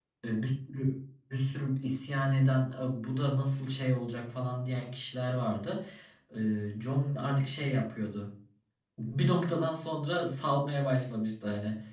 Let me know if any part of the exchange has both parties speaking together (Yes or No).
No